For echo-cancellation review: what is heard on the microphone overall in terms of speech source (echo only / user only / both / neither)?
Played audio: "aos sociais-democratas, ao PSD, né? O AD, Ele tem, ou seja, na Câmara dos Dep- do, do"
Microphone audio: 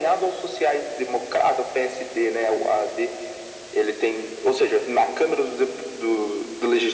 echo only